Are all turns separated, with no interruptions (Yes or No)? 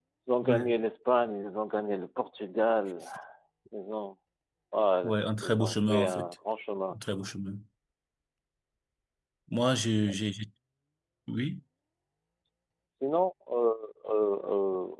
No